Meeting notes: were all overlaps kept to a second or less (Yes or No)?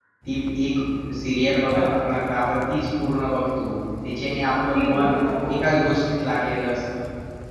Yes